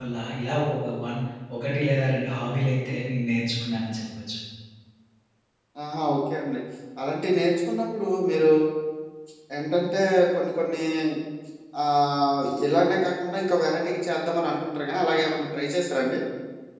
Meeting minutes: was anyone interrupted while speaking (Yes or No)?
No